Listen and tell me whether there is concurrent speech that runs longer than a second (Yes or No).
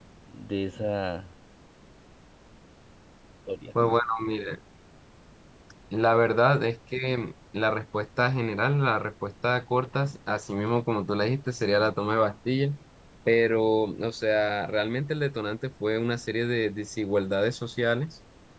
No